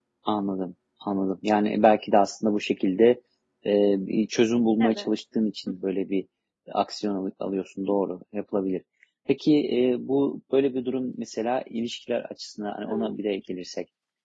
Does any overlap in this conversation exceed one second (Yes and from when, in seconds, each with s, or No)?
No